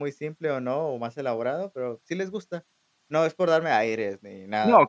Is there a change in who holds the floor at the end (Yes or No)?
Yes